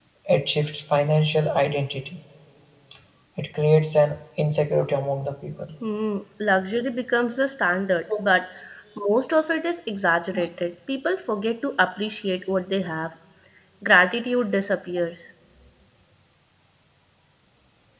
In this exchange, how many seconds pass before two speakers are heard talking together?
none

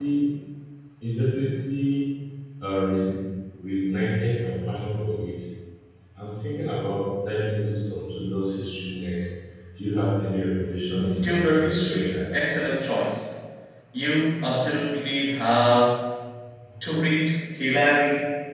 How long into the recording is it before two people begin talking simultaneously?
11 s

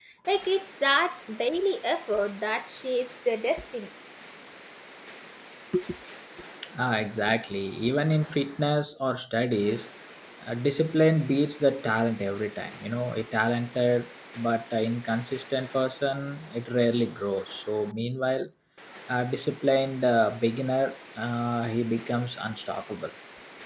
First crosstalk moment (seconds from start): none

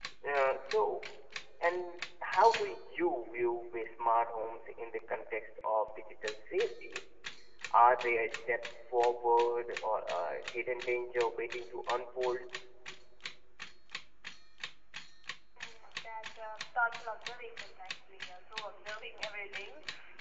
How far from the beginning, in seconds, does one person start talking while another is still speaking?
none

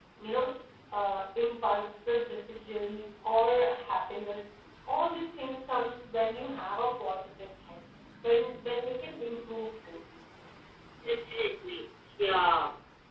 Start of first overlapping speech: none

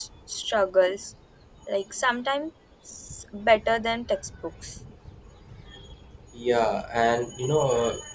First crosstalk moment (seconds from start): none

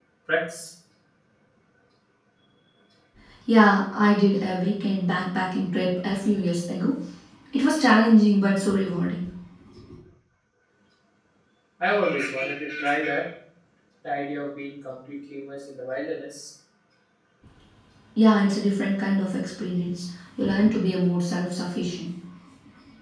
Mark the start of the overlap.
none

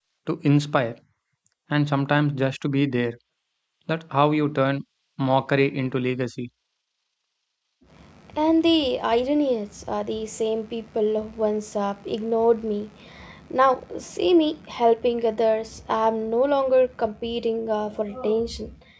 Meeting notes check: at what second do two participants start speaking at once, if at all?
none

